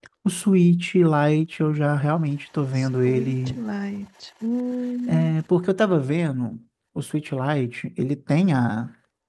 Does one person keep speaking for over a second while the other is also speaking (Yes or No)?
No